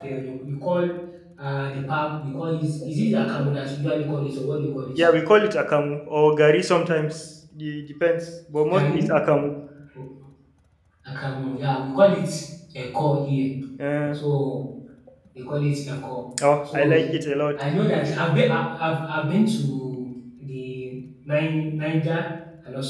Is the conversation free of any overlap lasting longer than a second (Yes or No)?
Yes